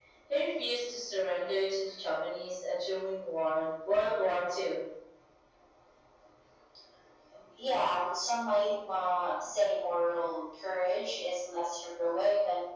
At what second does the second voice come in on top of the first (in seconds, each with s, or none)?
none